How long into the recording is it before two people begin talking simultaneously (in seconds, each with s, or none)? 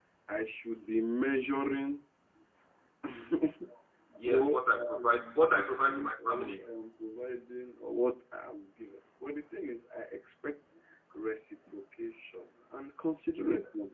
4.3 s